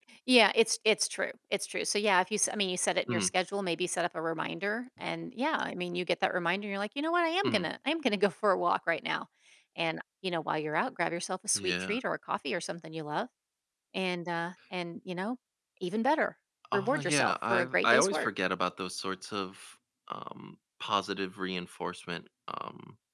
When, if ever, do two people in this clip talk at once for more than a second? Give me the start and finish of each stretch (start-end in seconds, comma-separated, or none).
16.7-18.3